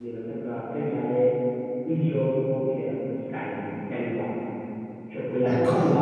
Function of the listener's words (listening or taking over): listening